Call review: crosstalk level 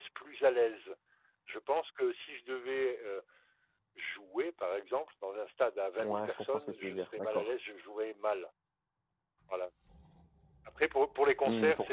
present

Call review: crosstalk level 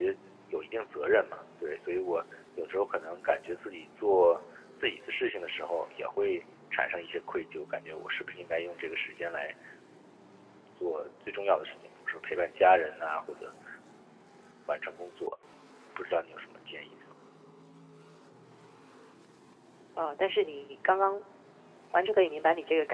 none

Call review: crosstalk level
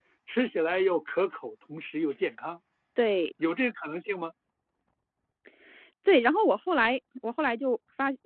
none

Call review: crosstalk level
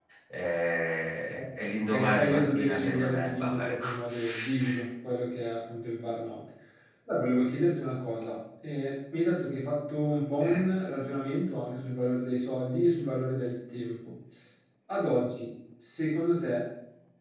present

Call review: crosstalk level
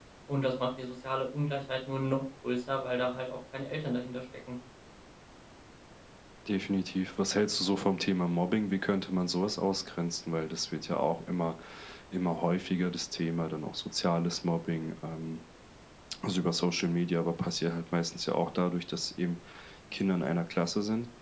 none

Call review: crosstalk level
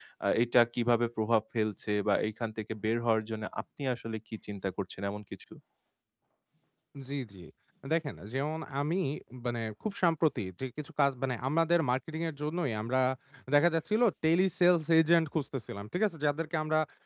none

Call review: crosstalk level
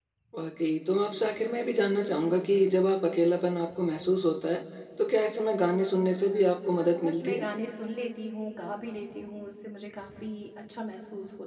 present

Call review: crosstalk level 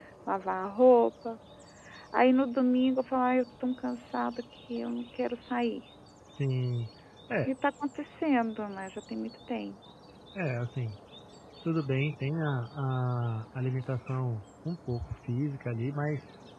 none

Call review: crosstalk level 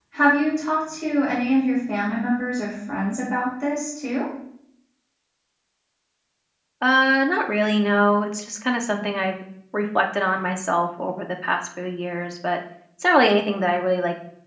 none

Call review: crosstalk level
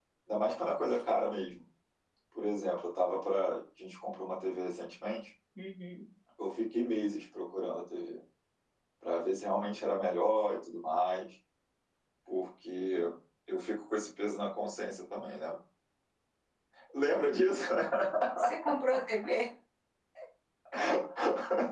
none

